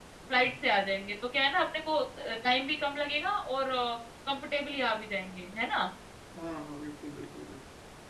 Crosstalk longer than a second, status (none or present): none